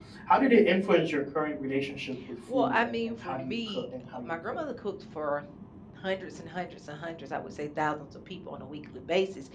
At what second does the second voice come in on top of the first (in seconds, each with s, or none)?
2.5 s